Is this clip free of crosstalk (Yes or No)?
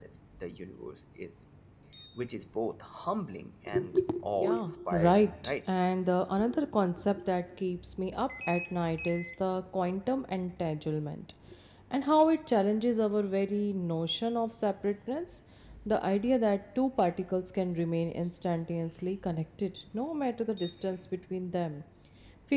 No